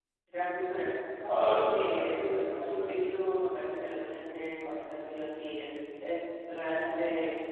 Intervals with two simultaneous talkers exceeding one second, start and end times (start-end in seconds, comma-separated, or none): 1.3-2.9